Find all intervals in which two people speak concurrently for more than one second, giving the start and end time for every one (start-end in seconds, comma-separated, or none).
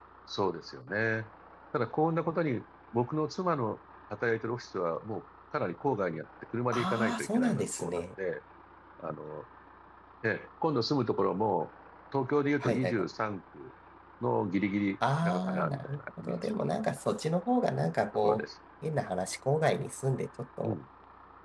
6.7-8.0, 15.2-16.5